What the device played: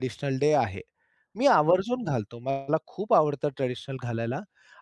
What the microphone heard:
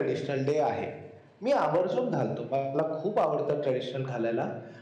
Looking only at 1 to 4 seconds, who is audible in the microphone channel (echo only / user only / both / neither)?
echo only